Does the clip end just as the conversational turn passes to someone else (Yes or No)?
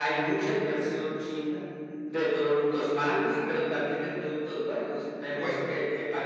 No